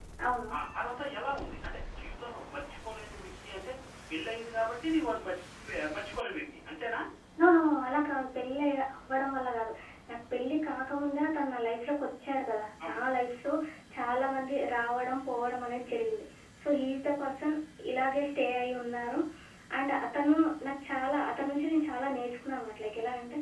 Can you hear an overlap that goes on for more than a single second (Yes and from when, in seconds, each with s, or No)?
No